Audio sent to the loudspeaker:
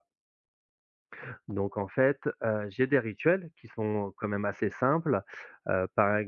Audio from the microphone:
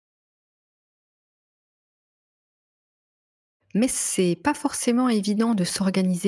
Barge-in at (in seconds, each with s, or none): 3.8 s